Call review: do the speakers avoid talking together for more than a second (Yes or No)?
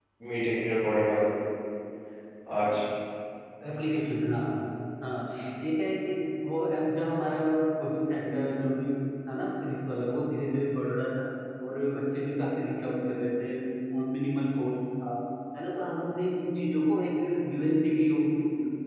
Yes